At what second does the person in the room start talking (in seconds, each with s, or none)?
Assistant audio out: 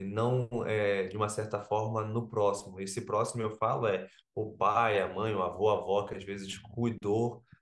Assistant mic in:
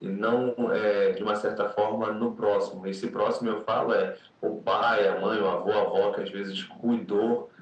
none